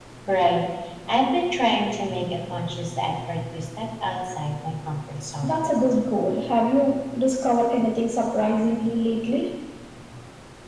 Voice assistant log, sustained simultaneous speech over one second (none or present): none